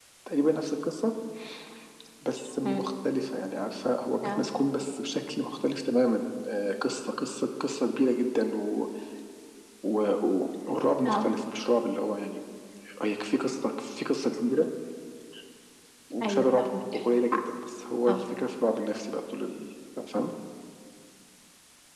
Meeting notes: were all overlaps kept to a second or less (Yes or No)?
Yes